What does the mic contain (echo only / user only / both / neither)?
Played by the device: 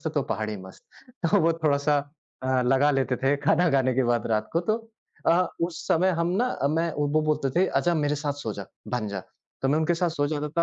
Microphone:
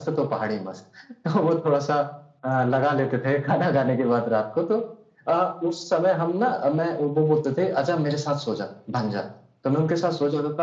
echo only